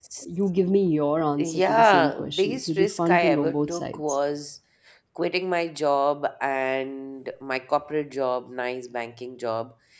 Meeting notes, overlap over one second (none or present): present